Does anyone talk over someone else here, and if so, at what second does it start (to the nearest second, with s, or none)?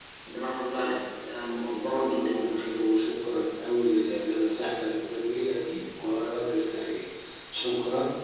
1 s